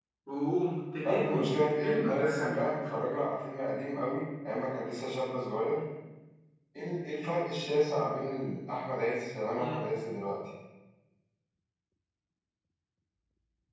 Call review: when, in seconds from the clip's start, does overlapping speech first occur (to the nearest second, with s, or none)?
1 s